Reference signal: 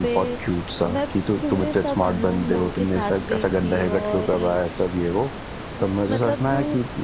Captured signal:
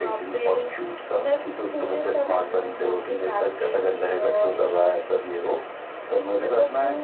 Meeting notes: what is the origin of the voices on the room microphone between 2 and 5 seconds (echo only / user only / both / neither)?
echo only